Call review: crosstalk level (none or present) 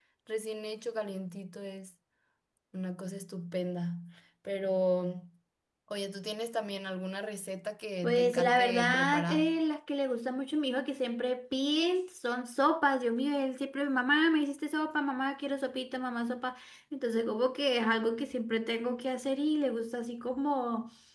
present